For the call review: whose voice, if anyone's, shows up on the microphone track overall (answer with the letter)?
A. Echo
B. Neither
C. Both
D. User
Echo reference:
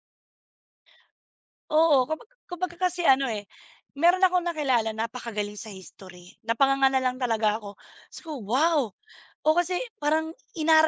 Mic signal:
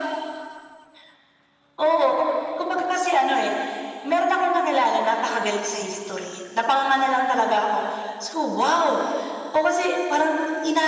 A